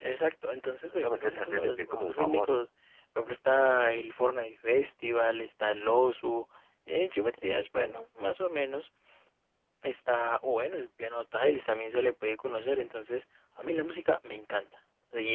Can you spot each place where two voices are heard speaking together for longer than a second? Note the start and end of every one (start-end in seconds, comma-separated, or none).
0.9-2.6